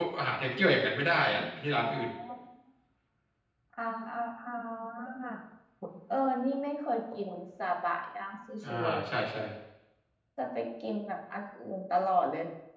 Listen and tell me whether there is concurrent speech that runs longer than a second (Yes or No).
No